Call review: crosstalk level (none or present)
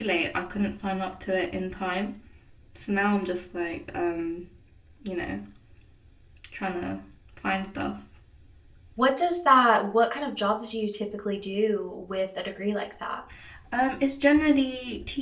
none